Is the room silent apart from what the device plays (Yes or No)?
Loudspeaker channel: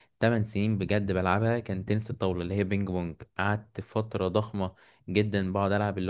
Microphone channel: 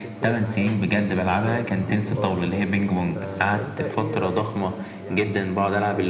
No